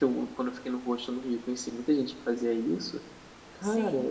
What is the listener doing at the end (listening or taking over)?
listening